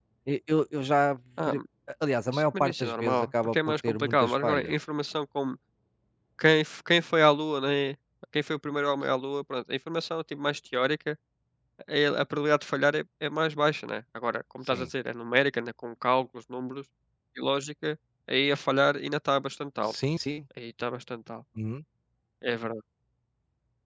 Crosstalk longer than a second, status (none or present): present